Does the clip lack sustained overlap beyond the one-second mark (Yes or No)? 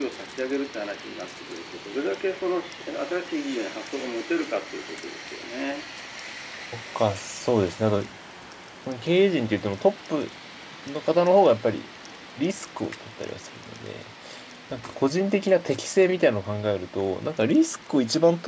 Yes